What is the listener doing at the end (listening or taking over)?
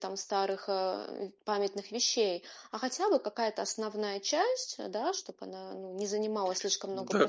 taking over